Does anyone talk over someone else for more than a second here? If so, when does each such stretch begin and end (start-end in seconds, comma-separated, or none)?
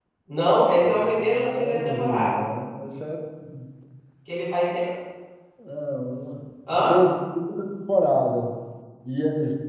0.8-2.4